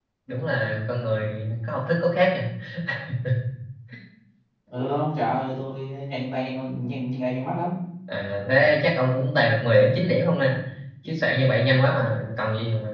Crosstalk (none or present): none